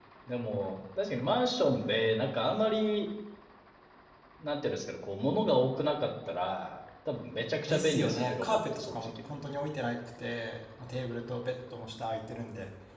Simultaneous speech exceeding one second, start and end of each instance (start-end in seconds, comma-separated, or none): 7.7-9.3